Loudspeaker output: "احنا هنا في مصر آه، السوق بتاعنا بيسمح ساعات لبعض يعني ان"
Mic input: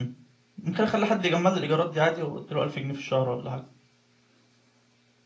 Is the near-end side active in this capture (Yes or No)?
Yes